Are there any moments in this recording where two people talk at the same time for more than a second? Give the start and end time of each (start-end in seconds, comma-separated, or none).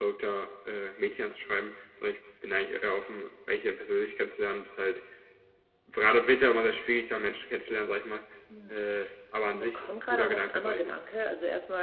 9.5-11.1